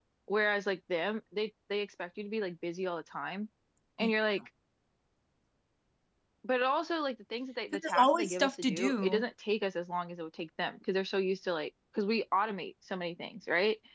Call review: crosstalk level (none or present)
present